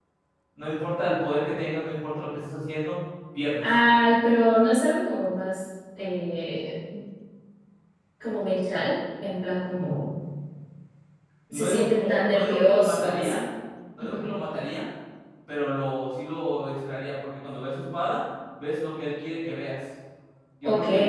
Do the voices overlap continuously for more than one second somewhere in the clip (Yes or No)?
Yes